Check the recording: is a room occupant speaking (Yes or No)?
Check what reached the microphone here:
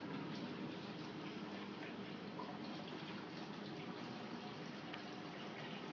No